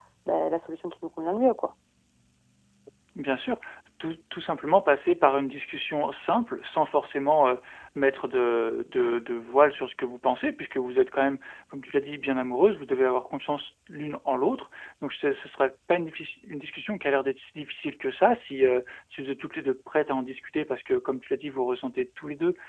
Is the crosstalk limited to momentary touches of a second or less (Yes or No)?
Yes